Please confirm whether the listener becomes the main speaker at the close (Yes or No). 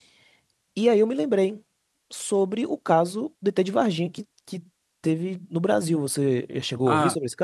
Yes